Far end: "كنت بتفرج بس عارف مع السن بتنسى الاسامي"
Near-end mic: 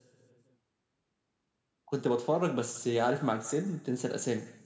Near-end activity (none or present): none